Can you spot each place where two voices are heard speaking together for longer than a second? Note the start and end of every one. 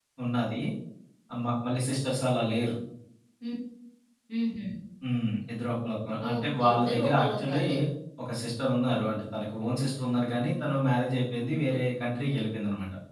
6.3-7.6

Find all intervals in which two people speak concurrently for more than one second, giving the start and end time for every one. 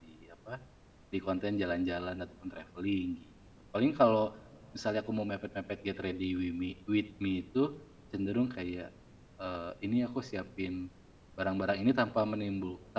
none

